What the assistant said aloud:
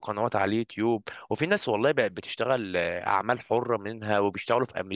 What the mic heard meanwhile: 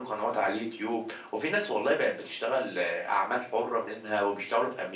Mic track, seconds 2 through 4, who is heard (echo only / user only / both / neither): echo only